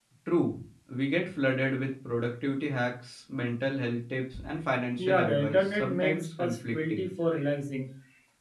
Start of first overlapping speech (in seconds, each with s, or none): 5.0 s